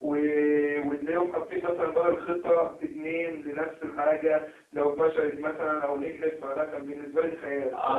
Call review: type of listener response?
taking over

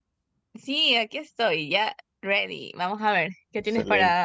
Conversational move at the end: taking over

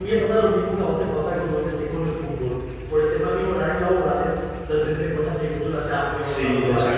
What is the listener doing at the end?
taking over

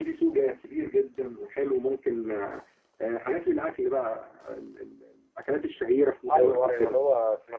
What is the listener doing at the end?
taking over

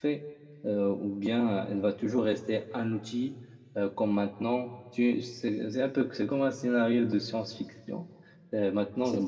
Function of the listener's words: listening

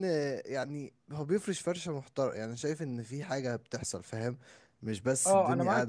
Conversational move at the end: taking over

